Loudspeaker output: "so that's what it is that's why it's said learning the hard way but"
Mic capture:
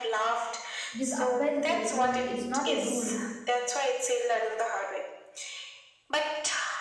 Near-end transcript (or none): this advice is a tool, it's not a rule.